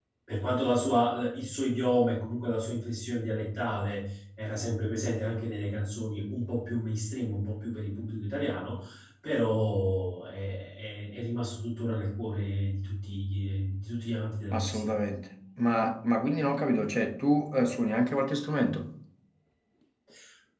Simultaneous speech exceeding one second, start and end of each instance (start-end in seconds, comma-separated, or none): none